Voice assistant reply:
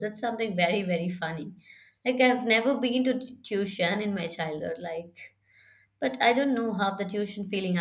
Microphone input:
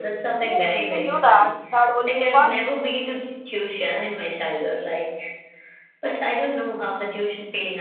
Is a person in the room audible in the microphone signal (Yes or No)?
Yes